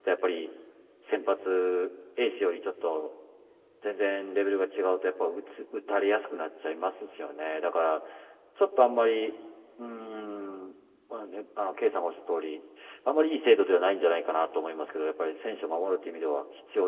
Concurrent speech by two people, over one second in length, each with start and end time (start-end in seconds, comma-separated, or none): none